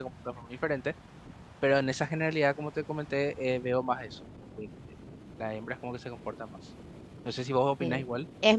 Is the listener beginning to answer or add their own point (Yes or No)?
Yes